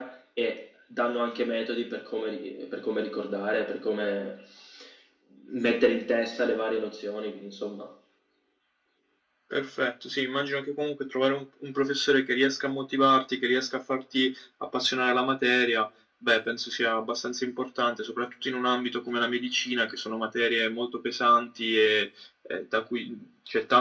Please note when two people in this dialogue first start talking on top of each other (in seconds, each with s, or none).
none